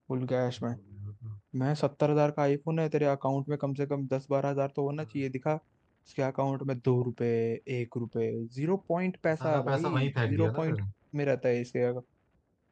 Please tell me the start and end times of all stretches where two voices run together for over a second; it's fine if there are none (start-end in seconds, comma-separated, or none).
9.4-10.8